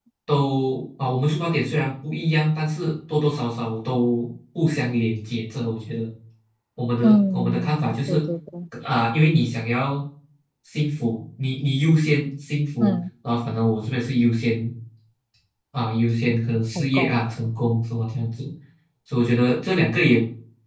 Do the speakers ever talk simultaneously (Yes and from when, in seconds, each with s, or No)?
Yes, from 7.0 s